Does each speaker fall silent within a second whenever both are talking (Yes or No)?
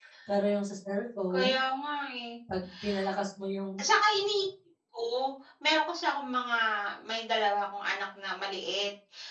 Yes